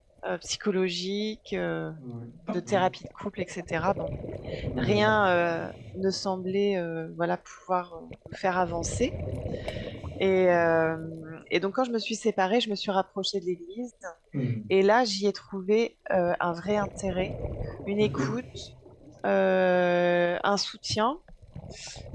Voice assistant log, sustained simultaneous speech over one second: none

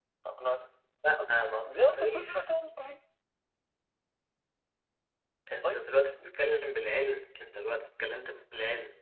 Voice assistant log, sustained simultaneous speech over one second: present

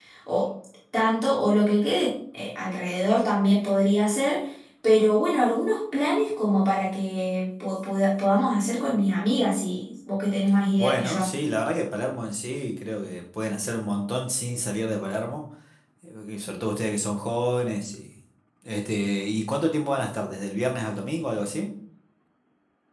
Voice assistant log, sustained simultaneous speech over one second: none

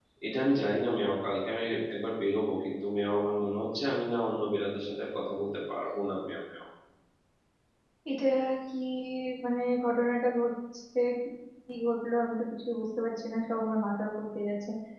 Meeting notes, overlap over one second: none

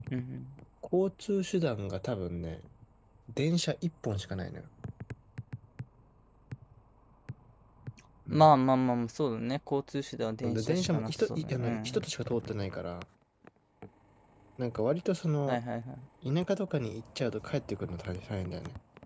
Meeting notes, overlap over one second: present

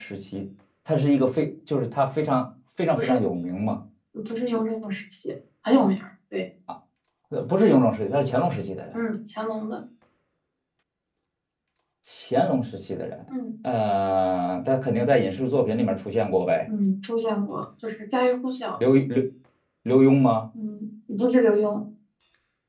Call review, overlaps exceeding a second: none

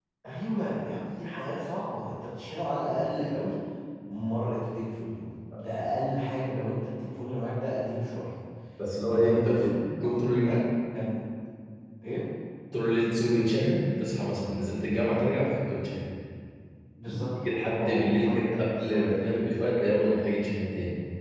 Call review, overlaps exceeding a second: present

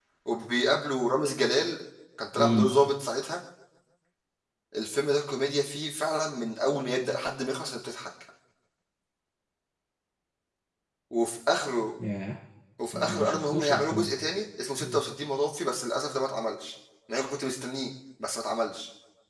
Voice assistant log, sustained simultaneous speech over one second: present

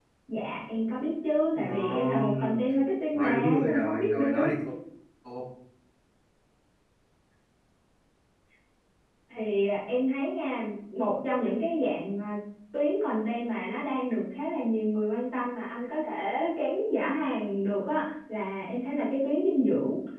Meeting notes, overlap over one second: present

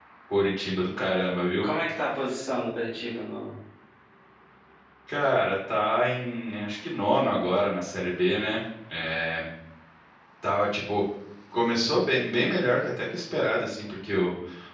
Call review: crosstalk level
none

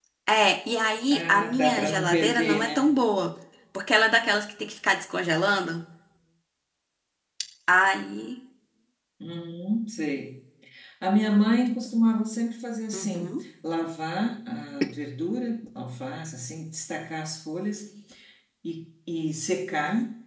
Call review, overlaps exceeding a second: present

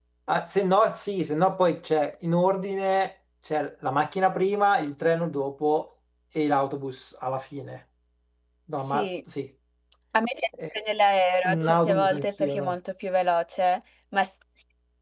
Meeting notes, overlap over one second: present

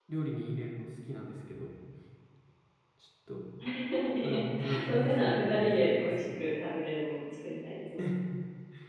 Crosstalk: present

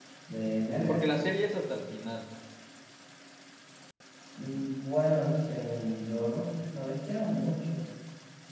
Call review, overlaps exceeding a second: none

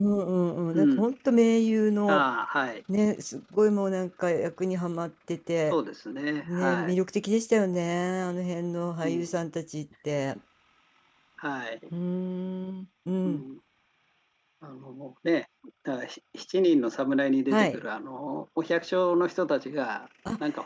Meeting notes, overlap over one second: none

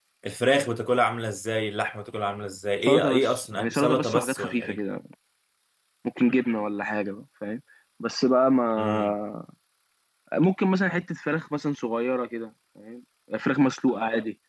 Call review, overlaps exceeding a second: present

